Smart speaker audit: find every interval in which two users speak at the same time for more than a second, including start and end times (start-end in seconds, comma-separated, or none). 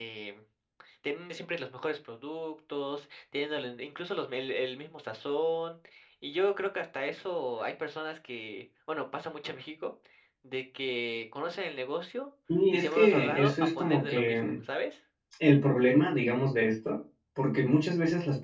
12.7-14.4